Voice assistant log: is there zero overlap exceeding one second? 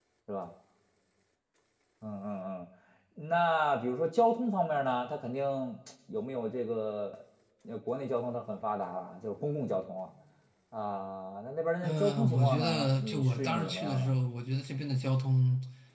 No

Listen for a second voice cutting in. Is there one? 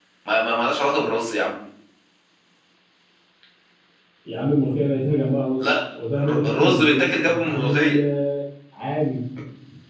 Yes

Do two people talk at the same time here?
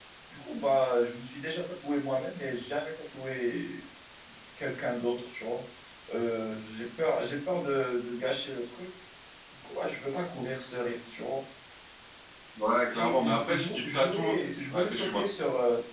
Yes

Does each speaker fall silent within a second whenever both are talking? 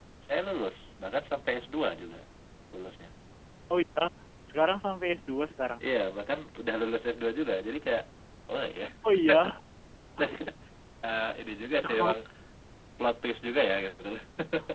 Yes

